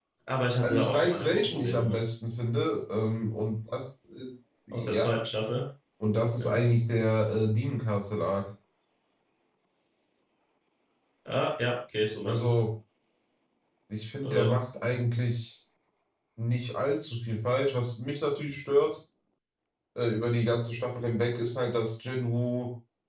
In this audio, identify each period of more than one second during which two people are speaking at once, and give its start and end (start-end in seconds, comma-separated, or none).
0.6-2.0